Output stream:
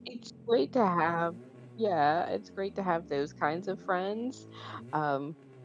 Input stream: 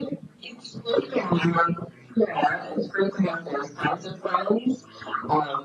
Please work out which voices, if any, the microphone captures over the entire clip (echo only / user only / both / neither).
echo only